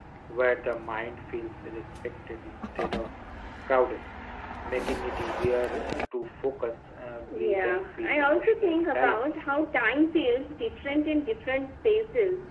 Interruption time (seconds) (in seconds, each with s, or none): 7.3 s